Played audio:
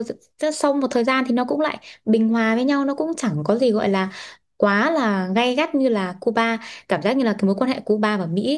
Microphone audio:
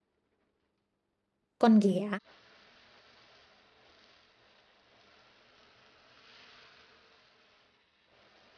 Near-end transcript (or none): con ghẻ